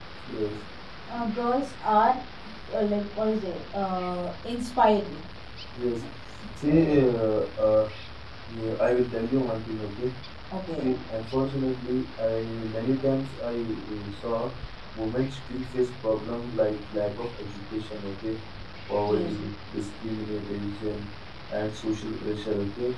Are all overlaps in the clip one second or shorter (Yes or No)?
Yes